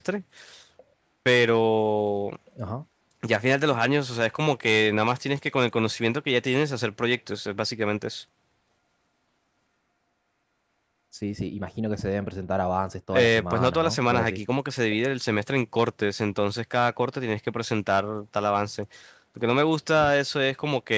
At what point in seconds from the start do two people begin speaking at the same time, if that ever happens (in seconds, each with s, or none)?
13.1 s